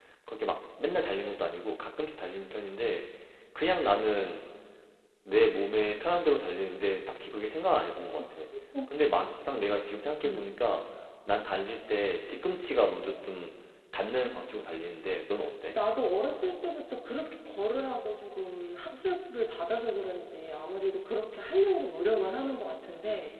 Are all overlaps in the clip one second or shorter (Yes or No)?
Yes